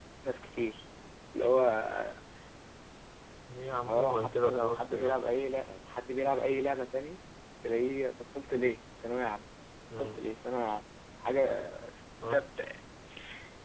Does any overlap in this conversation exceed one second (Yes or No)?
Yes